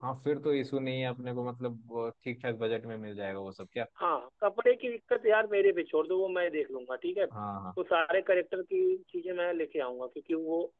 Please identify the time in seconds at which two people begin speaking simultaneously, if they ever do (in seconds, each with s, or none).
none